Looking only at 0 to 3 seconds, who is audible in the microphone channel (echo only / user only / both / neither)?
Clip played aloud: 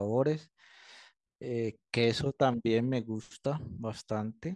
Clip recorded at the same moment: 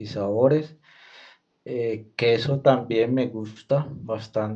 echo only